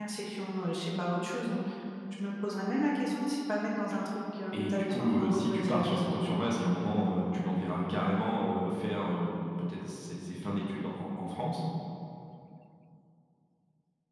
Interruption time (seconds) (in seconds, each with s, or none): 4.5 s